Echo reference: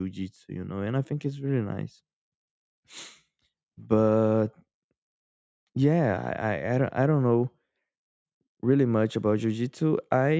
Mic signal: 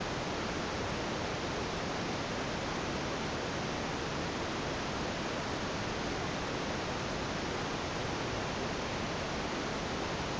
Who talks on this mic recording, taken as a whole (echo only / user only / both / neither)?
neither